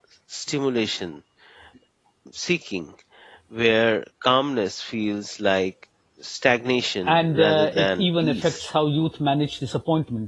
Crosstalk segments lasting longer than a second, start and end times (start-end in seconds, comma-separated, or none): 7.1-8.6